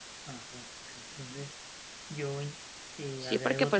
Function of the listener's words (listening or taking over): taking over